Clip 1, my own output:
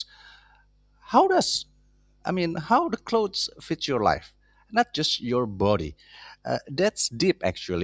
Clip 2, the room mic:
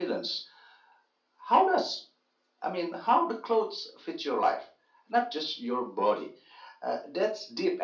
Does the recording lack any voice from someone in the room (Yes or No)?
Yes